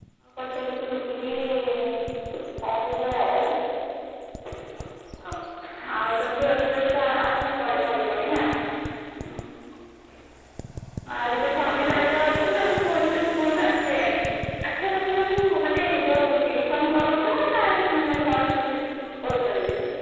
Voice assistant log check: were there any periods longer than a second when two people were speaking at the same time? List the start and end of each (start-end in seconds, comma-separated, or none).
11.6-13.0